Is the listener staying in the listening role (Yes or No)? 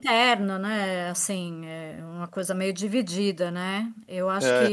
Yes